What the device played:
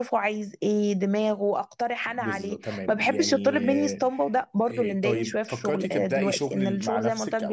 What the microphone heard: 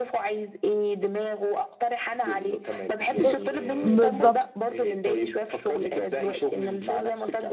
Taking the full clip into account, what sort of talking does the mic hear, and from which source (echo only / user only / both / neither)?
both